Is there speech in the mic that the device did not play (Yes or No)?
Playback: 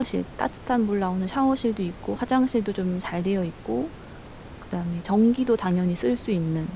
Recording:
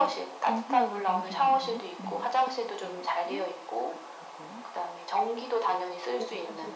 Yes